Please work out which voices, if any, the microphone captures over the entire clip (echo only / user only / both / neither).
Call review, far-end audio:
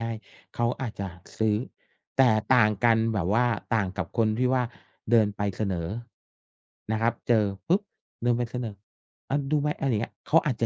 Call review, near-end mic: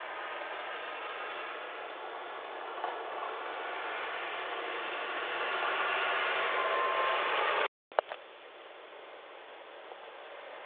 neither